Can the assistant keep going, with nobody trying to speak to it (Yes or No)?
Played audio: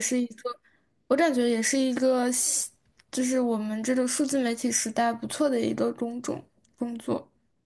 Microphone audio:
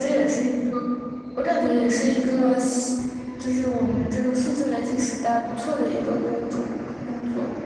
Yes